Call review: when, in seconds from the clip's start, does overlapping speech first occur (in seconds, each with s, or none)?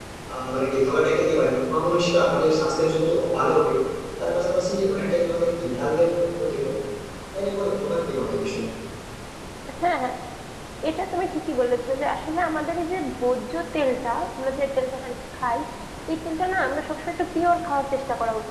none